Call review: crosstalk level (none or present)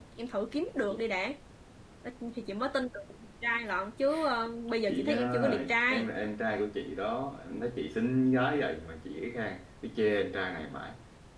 present